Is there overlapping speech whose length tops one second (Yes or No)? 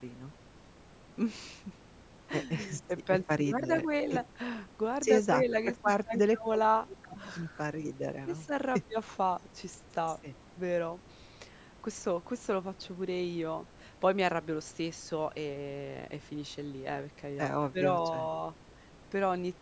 Yes